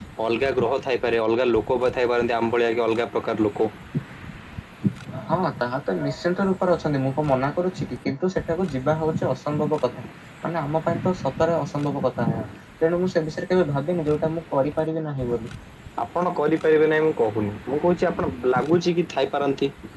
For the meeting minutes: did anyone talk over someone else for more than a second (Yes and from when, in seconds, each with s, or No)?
No